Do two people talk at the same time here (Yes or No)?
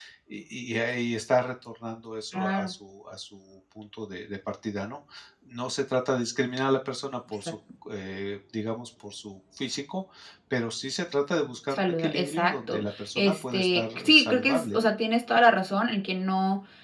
Yes